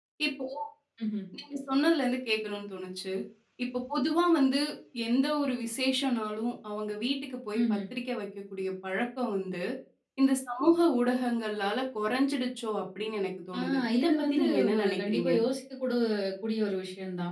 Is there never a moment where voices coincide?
No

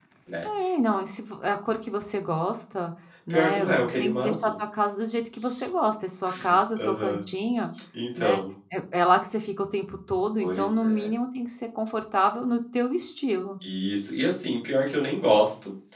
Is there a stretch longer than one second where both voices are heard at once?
Yes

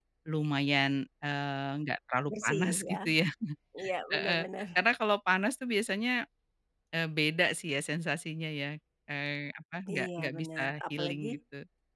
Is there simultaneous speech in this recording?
Yes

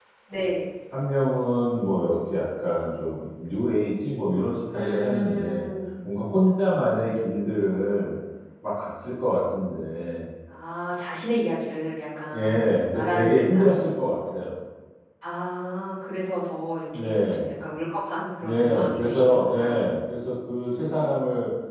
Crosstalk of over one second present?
Yes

